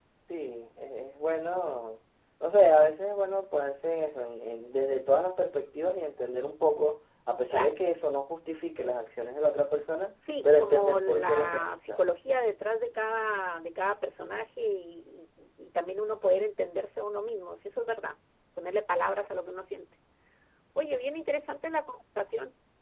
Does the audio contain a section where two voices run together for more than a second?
Yes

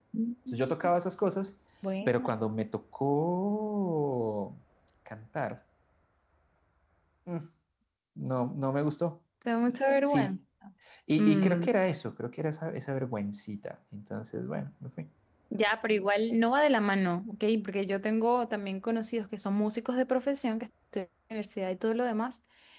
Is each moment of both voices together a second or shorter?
Yes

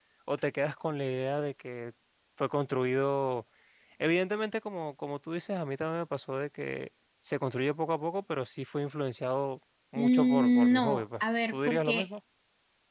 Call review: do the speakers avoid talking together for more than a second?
No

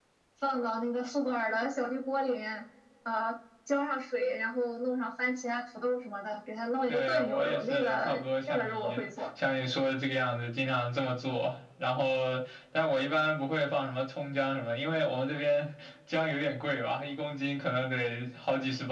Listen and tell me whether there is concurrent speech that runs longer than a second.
Yes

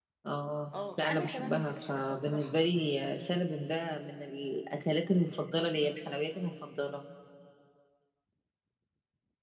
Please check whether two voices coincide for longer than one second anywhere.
Yes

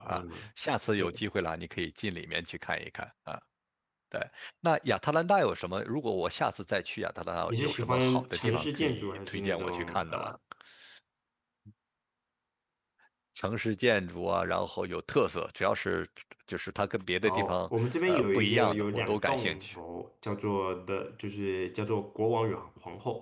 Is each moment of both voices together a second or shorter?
No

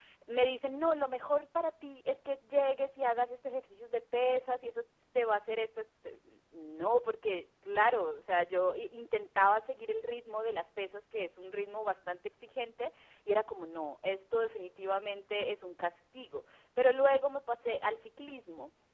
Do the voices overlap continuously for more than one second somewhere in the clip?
No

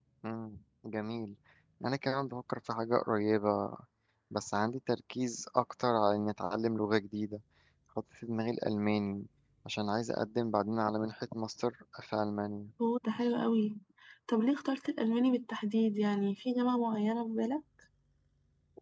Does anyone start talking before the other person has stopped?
No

